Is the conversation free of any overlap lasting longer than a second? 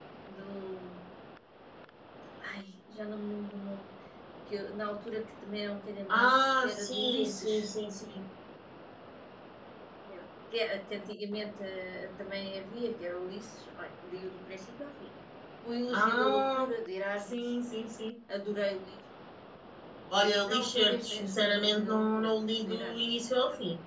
No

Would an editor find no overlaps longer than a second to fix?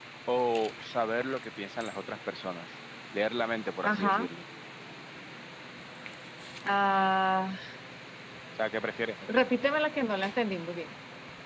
Yes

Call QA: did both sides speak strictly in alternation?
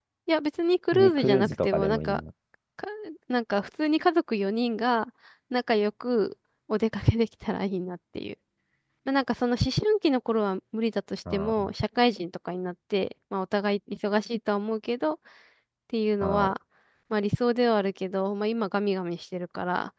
No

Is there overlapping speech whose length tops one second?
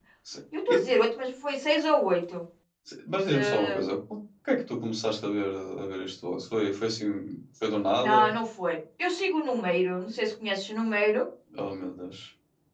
No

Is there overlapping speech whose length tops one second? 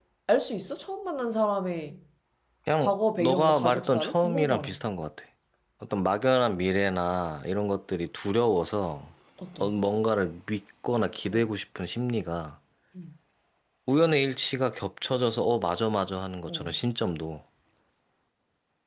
Yes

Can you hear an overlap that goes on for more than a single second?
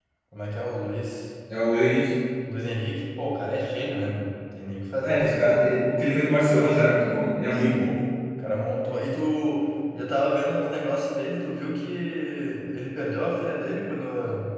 No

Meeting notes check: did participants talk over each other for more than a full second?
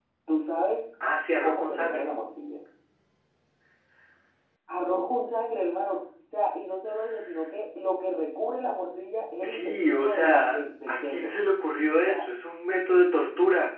Yes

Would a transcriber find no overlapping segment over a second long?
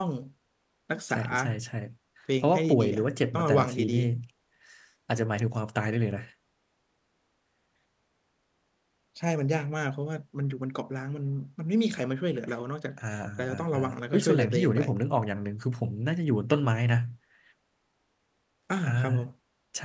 No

